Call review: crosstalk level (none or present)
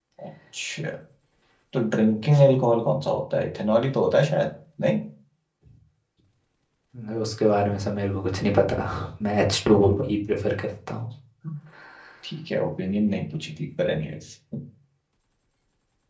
none